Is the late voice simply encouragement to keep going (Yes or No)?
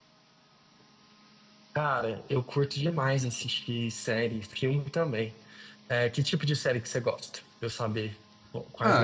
No